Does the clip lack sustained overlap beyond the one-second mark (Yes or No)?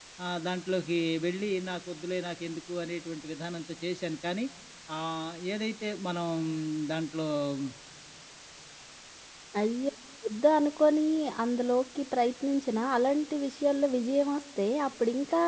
Yes